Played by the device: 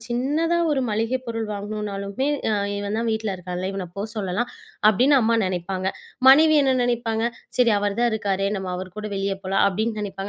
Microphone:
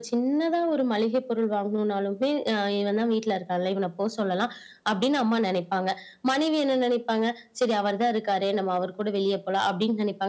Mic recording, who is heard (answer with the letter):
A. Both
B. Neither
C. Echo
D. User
C